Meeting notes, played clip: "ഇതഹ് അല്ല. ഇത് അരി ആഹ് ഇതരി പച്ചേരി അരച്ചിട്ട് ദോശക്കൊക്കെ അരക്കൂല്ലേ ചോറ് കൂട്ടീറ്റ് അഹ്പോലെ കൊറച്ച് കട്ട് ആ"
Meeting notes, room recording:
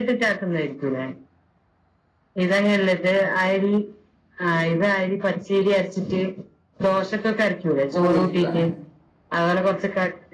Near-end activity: present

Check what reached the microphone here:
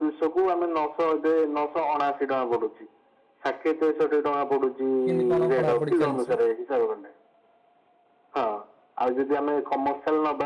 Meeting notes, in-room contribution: present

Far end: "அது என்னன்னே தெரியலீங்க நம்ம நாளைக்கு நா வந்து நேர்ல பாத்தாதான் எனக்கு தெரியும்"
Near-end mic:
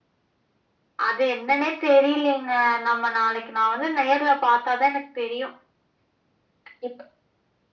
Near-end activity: none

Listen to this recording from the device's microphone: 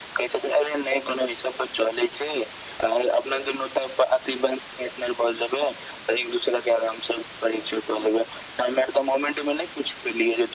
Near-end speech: none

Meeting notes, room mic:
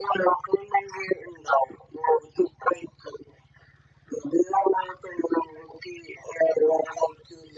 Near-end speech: none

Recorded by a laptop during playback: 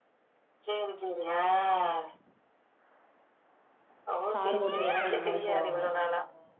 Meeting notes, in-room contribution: present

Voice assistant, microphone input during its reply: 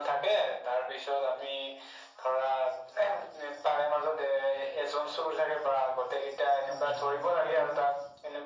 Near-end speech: present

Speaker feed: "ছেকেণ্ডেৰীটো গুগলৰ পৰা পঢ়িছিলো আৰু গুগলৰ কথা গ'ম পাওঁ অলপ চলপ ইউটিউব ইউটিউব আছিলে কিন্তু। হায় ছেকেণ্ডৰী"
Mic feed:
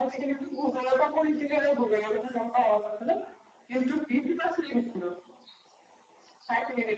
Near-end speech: none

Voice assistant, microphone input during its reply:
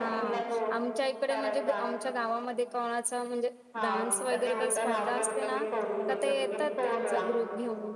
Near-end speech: present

